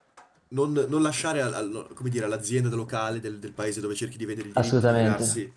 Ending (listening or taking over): listening